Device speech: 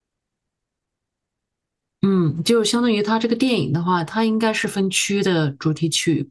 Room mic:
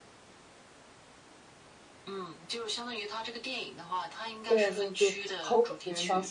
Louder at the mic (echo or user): user